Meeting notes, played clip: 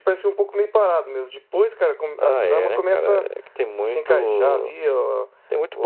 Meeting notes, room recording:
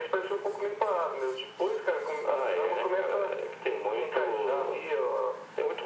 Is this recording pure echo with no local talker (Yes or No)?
Yes